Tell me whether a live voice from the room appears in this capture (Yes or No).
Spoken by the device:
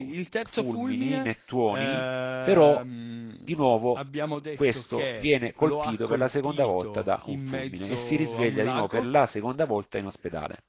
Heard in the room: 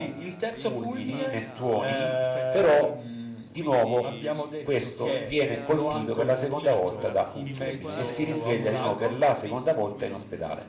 Yes